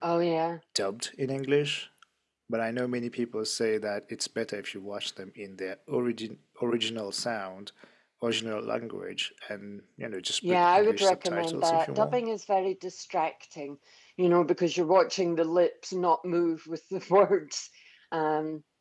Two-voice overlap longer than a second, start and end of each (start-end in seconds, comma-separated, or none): 10.5-12.2